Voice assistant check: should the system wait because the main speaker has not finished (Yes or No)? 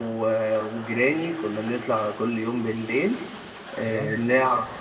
Yes